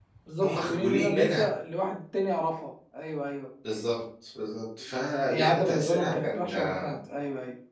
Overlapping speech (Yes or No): Yes